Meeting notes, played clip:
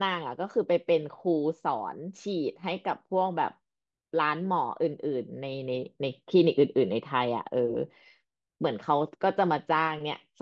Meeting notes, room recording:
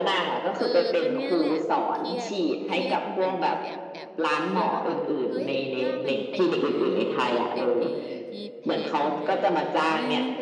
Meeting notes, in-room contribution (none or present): present